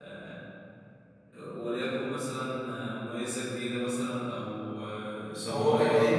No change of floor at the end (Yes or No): No